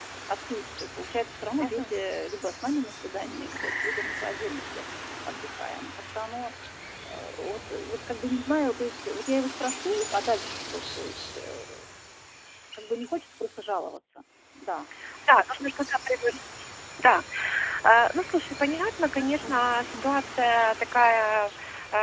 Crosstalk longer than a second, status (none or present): none